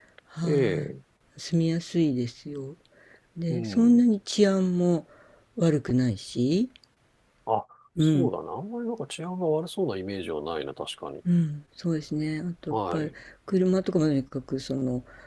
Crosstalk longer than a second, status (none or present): none